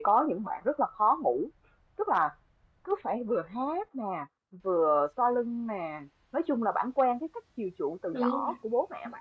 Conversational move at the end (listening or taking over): listening